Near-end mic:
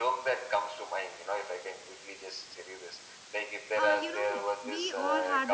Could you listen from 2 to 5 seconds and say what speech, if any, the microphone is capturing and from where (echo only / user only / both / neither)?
both